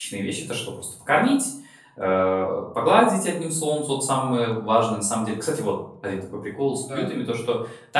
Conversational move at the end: listening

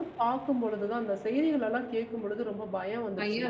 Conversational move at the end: taking over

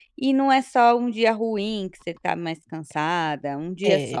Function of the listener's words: taking over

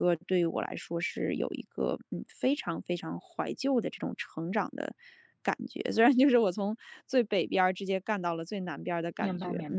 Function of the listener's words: taking over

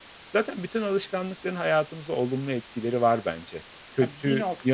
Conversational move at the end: taking over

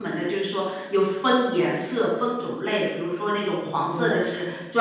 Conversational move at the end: listening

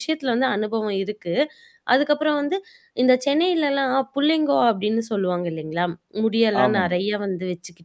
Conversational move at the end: listening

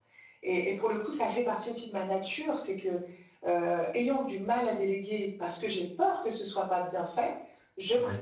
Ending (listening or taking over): listening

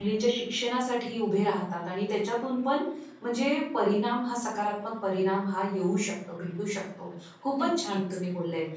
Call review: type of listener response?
listening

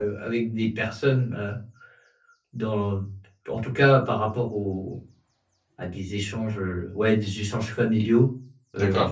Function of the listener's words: listening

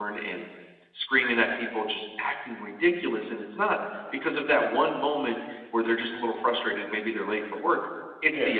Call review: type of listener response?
listening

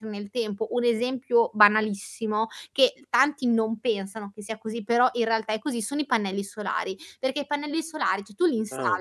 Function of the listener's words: listening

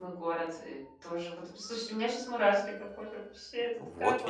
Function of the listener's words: taking over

